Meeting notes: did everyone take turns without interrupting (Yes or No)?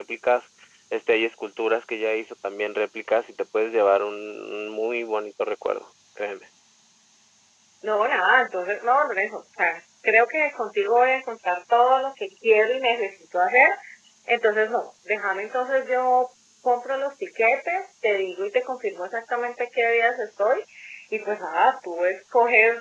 Yes